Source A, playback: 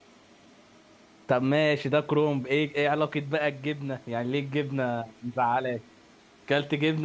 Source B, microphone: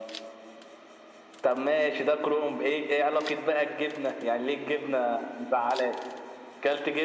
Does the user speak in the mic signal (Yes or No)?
No